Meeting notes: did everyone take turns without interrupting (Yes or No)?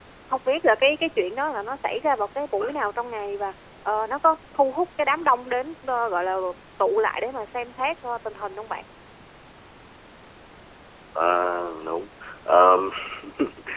Yes